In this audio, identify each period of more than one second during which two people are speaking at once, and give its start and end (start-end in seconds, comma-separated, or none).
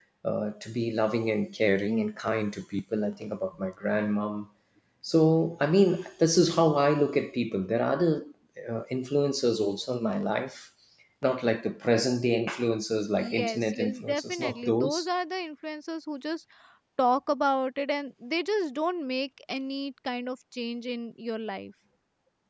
13.1-15.1